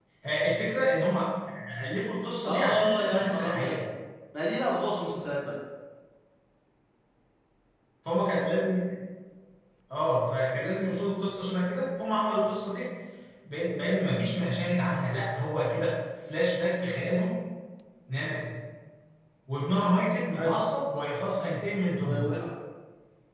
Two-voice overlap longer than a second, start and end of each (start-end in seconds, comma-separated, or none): 2.5-3.8